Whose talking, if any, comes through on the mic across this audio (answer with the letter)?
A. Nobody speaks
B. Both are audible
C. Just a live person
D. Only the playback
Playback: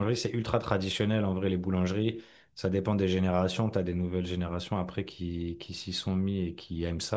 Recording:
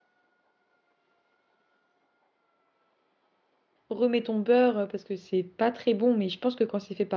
C